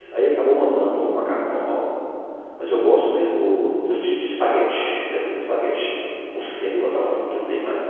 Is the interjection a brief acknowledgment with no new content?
Yes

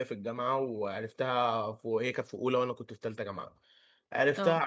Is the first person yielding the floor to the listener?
No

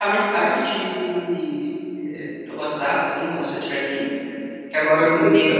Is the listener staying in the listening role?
Yes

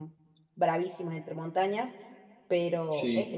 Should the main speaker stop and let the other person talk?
No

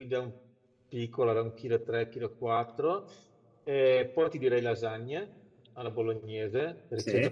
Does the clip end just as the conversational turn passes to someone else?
No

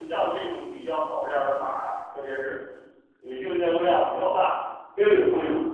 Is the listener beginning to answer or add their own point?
No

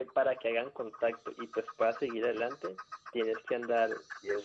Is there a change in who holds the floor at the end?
No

